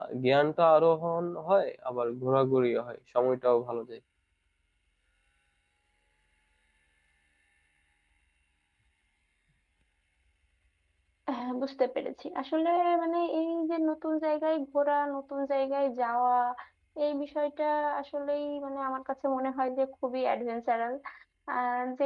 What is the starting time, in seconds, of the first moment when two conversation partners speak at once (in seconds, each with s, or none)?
none